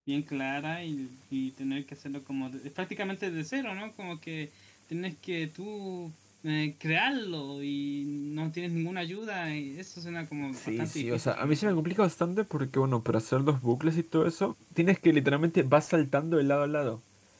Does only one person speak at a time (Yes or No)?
No